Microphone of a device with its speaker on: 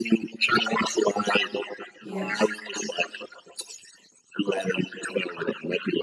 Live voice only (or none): Yes.